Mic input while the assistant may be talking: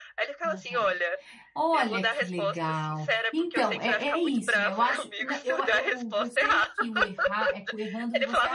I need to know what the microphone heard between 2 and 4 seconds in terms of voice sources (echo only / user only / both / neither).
both